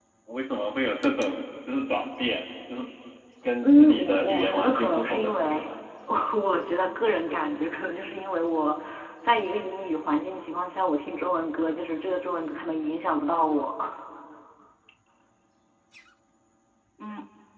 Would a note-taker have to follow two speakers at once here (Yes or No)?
Yes